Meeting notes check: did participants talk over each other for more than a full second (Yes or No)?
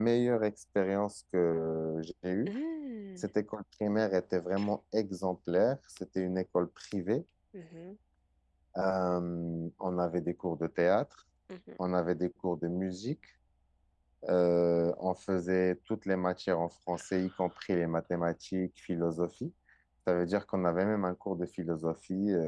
No